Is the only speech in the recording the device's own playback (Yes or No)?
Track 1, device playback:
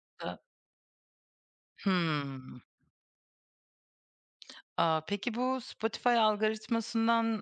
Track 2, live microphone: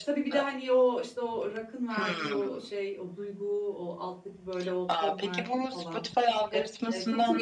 No